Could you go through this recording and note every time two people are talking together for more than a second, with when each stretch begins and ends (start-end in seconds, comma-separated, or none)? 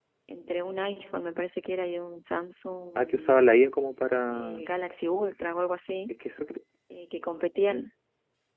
none